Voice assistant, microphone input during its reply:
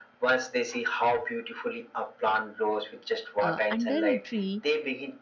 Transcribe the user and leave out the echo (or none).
uh, under a tree